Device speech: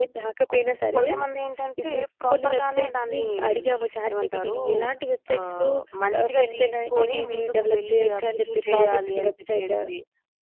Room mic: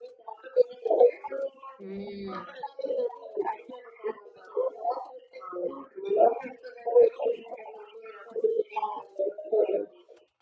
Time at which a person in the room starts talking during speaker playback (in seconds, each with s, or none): 1.8 s